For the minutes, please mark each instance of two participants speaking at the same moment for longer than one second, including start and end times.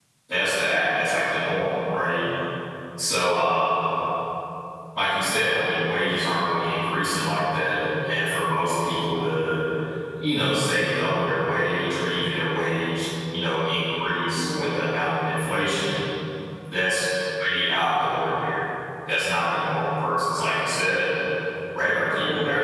none

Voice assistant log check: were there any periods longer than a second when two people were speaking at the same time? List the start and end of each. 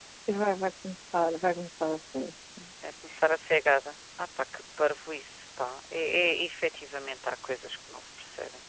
none

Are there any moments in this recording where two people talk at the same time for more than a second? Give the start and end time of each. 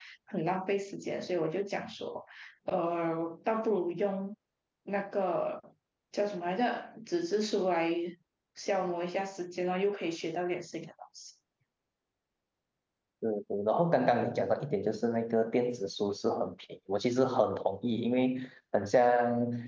none

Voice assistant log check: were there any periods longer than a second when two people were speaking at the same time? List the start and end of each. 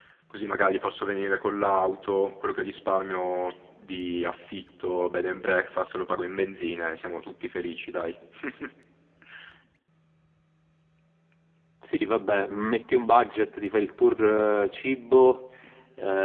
none

